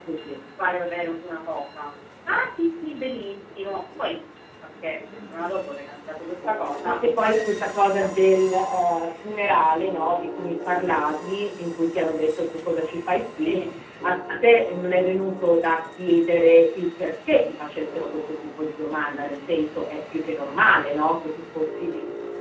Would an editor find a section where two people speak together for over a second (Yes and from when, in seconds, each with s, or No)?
Yes, from 6.8 s